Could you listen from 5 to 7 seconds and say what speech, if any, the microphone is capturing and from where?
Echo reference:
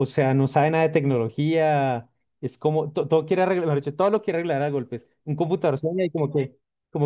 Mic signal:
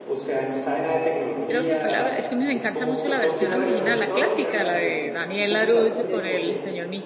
both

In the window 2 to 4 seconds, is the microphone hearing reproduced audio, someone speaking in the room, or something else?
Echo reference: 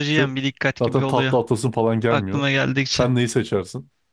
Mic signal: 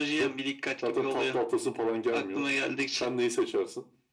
echo only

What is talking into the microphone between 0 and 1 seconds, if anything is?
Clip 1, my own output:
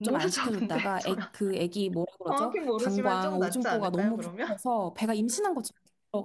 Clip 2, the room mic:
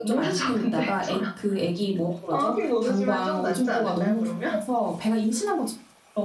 echo only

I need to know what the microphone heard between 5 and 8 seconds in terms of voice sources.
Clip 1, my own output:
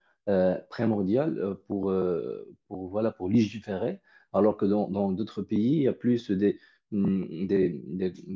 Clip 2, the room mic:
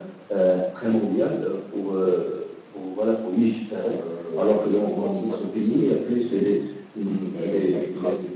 both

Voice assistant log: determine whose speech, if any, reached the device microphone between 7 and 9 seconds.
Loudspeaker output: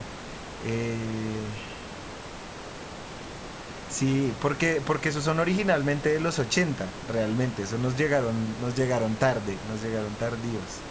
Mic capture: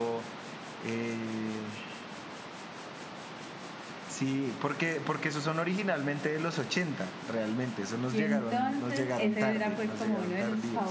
both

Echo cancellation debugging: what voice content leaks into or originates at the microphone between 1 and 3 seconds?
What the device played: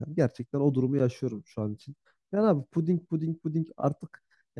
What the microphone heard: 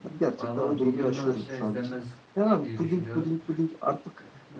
both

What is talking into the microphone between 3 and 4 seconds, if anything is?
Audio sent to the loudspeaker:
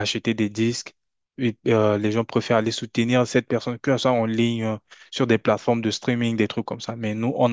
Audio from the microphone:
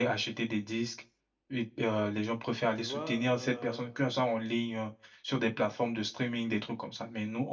both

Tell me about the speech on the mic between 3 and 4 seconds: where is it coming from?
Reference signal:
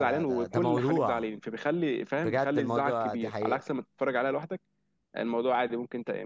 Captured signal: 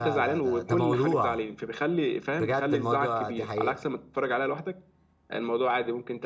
echo only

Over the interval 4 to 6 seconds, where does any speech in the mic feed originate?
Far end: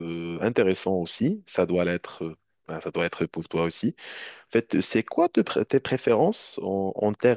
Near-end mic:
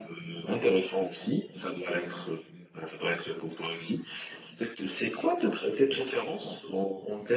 echo only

